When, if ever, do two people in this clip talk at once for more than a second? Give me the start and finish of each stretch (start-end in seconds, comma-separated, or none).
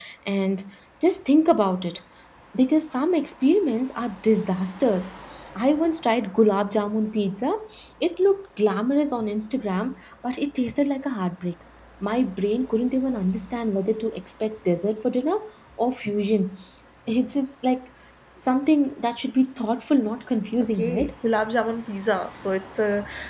none